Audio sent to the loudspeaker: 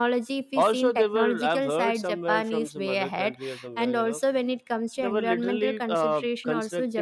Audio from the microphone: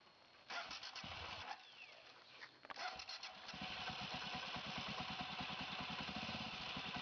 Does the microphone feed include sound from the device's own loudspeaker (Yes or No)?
No